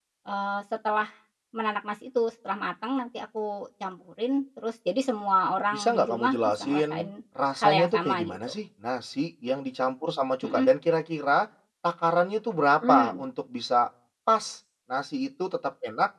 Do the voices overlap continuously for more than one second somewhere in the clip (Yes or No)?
Yes